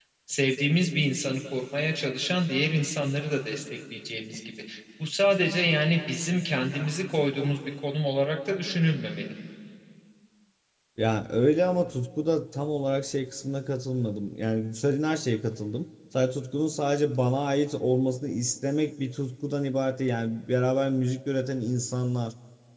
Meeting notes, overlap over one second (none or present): none